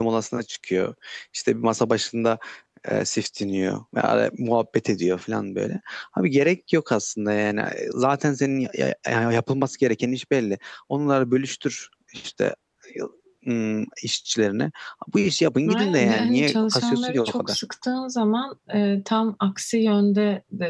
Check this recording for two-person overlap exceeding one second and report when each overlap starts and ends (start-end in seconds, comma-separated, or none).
15.7-17.6